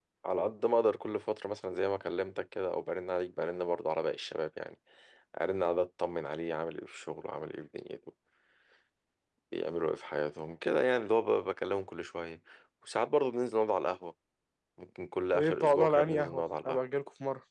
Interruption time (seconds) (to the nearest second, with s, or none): 15 s